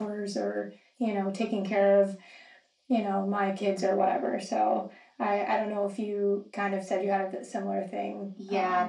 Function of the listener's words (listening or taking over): taking over